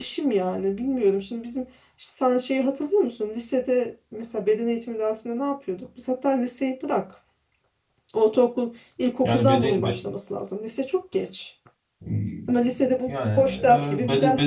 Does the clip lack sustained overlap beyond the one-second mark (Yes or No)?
No